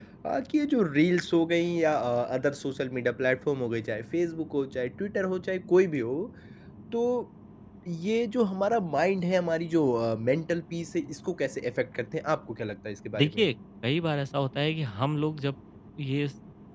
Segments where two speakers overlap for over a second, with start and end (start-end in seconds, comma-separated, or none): none